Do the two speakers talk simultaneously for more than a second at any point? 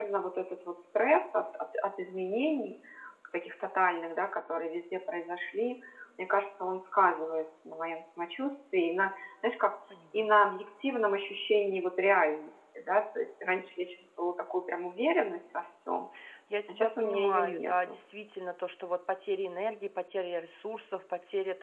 Yes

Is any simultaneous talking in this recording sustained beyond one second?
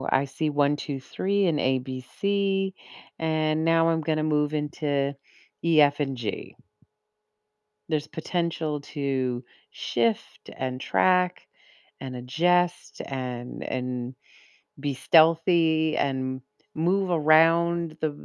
No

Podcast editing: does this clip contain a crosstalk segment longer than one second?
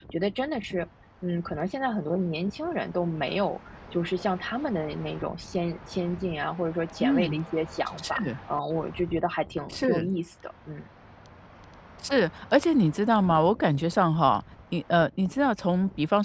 No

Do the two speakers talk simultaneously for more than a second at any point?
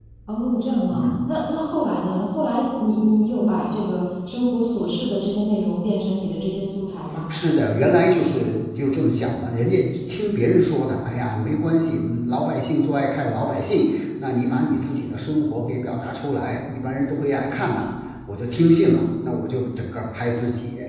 No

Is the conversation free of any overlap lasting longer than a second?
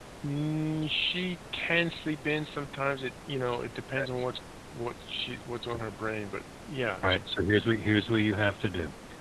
Yes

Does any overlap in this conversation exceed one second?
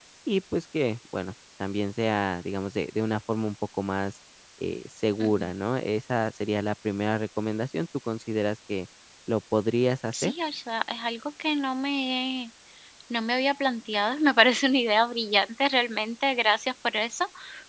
No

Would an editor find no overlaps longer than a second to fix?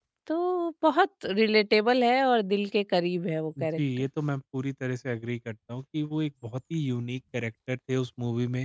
Yes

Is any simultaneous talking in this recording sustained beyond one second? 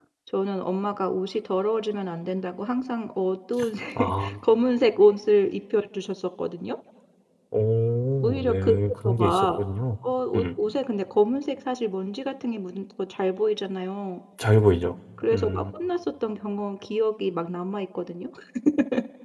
No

